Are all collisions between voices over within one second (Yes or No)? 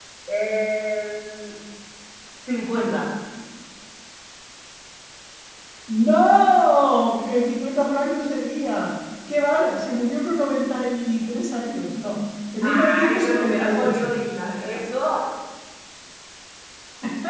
No